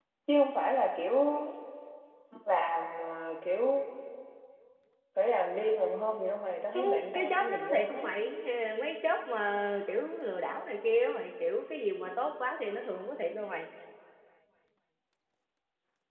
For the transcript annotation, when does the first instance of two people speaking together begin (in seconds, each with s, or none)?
6.7 s